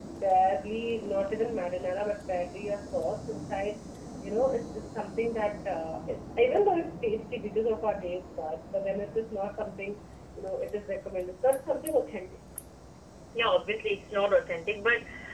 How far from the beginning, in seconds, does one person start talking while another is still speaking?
none

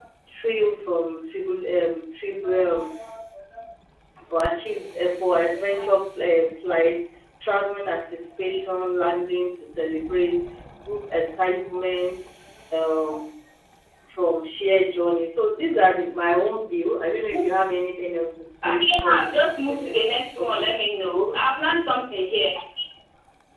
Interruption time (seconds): 18.6 s

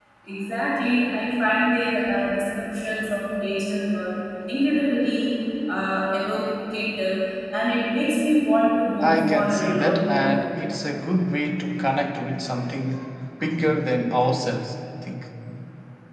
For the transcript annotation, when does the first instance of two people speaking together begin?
9.0 s

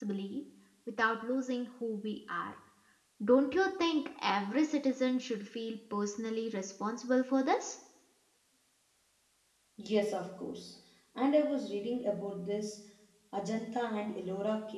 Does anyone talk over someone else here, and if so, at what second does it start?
none

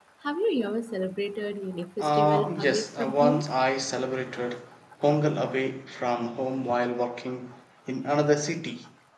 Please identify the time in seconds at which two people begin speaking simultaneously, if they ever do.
2.0 s

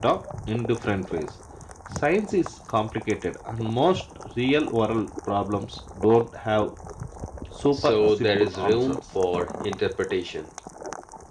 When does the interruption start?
7.7 s

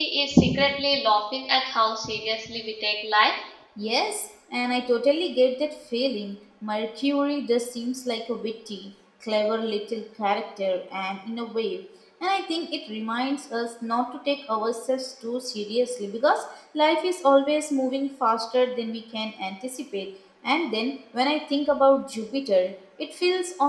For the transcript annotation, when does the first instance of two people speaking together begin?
none

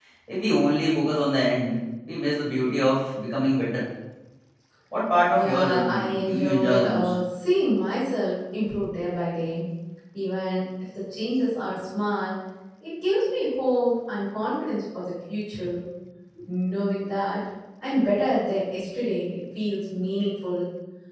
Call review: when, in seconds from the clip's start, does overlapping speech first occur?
5.3 s

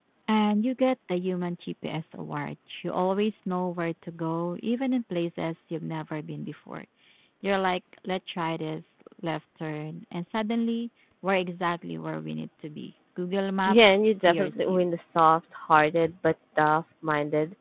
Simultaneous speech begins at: 13.6 s

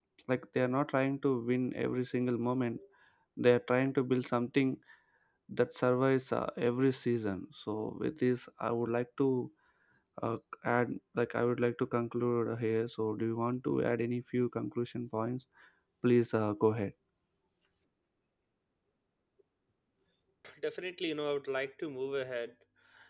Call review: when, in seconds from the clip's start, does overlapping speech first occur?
none

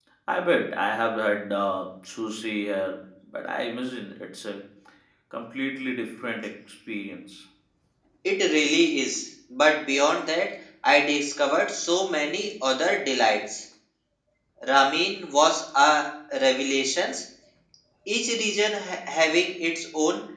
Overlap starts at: none

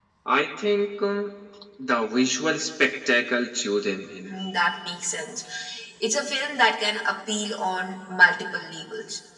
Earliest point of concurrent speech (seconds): none

